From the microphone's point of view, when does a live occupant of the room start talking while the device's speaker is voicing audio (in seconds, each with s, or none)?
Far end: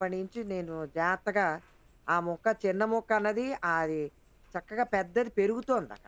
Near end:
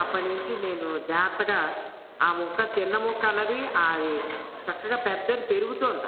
none